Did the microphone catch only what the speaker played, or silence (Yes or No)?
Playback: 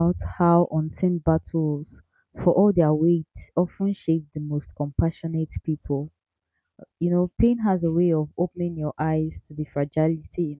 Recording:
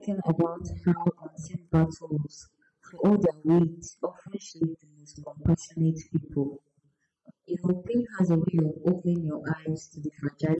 Yes